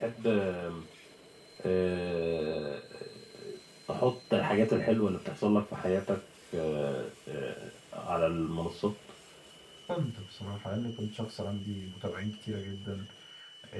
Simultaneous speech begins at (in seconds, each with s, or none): none